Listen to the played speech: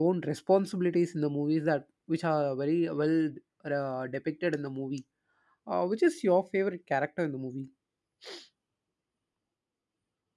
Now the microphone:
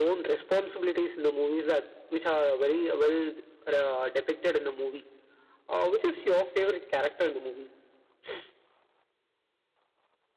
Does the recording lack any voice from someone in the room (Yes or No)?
Yes